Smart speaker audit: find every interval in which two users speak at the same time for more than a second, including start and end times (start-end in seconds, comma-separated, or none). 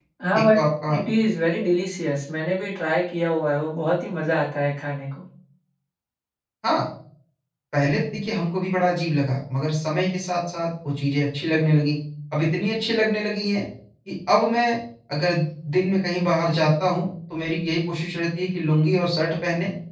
none